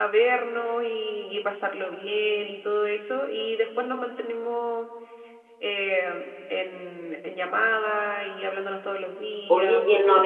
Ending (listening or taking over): taking over